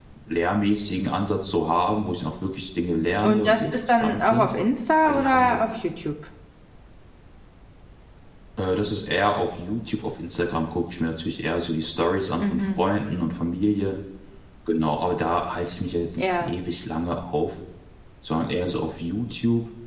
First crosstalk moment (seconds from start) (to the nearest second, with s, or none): 3 s